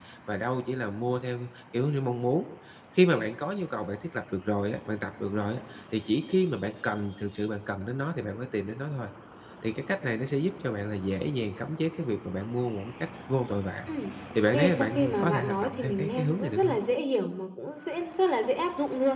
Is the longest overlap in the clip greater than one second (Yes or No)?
Yes